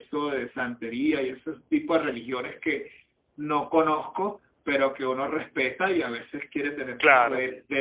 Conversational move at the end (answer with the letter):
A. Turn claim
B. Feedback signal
B